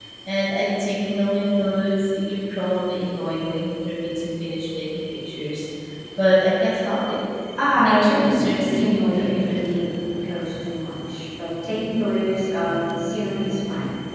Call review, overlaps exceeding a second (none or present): present